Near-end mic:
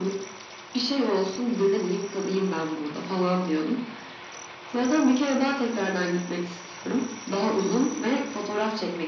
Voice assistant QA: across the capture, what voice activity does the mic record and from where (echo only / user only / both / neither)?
echo only